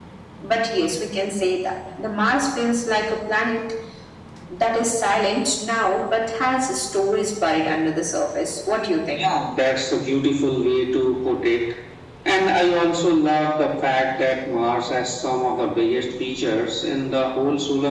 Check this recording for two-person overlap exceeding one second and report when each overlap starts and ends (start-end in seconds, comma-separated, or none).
none